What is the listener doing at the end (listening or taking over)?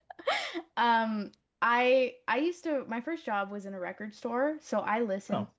listening